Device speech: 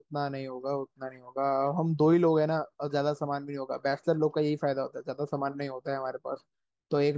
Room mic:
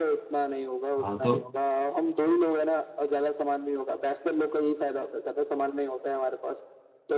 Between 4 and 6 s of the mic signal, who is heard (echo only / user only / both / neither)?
echo only